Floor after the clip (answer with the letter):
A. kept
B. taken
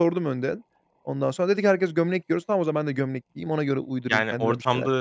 B